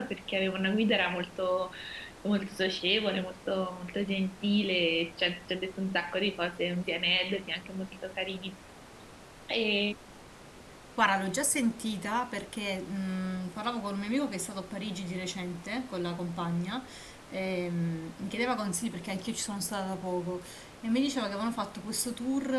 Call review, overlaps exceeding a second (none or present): none